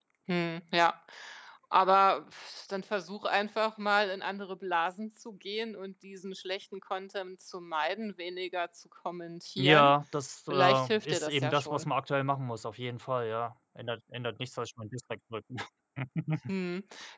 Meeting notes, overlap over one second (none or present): present